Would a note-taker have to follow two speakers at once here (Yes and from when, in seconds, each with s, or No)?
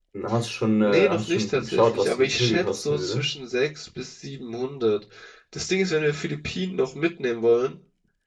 Yes, from 0.8 s